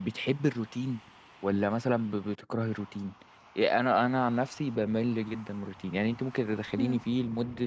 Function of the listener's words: listening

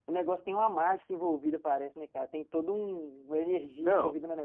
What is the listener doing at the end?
listening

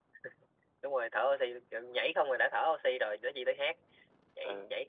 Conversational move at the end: listening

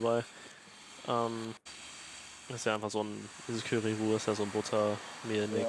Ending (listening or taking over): taking over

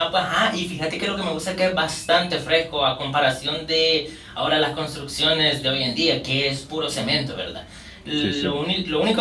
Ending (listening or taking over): listening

